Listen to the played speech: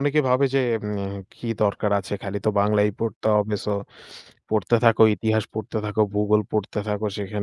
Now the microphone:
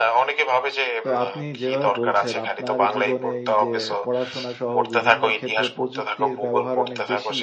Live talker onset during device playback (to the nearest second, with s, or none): 1 s